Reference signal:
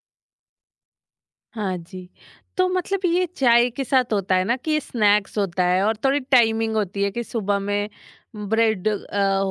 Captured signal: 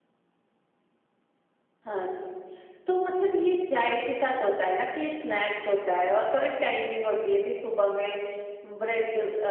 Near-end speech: none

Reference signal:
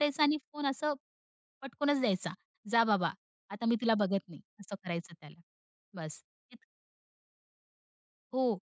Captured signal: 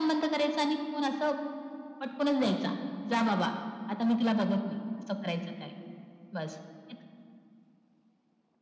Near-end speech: none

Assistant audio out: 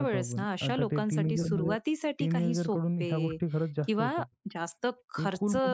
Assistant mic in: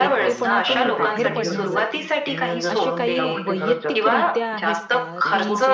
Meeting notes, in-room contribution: present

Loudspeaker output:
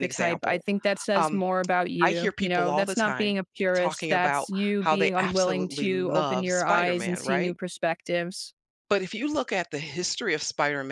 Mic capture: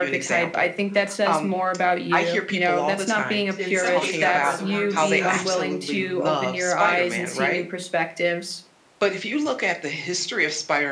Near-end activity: present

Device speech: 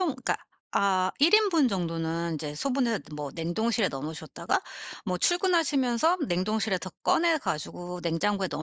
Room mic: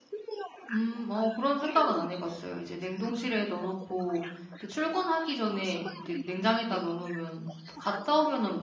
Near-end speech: present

